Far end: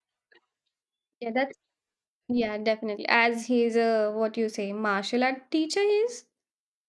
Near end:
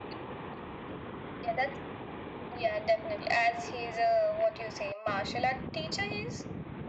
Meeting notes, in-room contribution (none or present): none